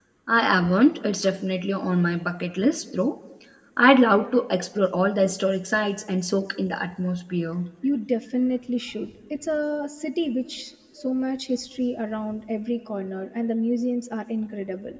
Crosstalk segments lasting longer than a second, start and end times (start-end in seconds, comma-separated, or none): none